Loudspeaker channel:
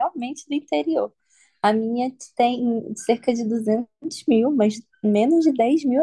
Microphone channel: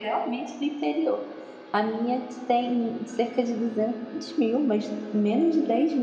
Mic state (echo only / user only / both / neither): echo only